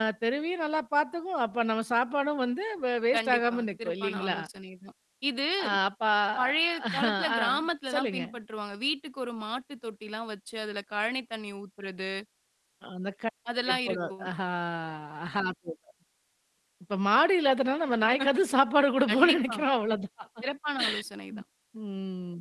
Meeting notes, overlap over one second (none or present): present